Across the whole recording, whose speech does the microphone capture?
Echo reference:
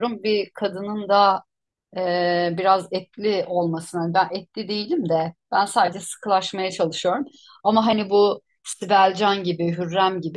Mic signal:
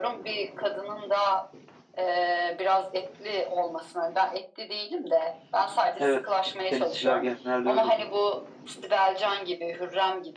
both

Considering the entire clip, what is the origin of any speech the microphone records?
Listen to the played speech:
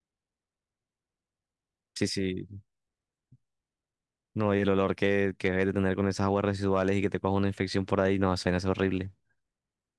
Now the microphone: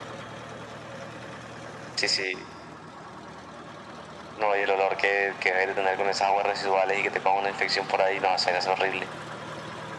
echo only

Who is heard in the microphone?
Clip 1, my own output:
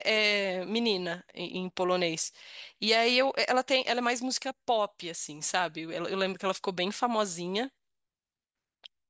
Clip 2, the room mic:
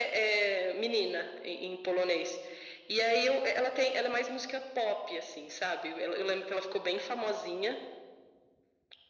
echo only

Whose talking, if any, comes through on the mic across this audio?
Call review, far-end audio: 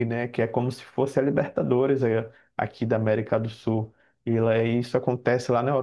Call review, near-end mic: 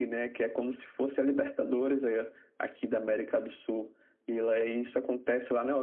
echo only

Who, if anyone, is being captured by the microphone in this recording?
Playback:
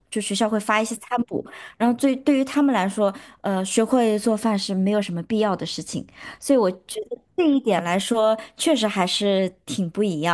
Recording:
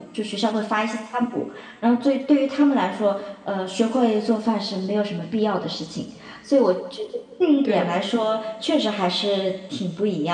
both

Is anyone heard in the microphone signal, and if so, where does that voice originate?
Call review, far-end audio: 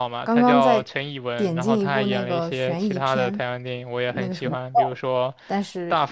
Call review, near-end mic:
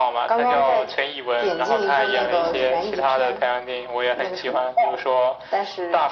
echo only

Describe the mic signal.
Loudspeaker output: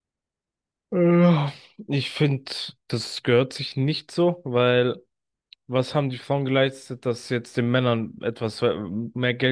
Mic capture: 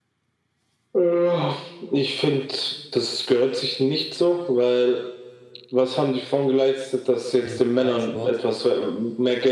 both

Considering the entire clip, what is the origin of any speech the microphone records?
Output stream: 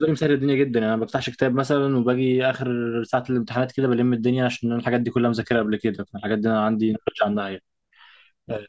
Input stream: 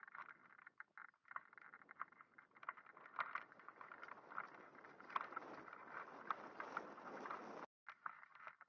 neither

